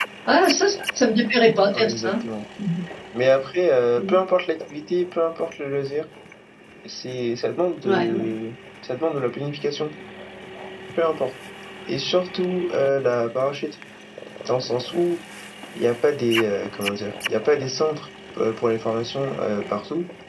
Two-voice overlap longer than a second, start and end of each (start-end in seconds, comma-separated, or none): none